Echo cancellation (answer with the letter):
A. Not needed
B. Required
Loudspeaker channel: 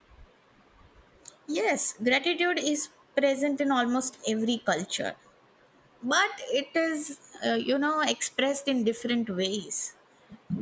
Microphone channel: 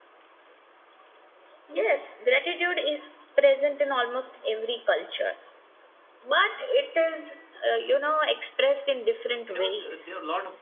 B